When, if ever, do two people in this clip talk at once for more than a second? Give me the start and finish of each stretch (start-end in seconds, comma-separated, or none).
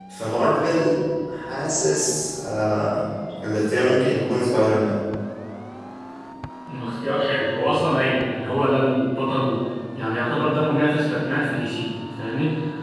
none